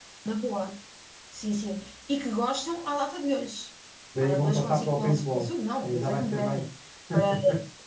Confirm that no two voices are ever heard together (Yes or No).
No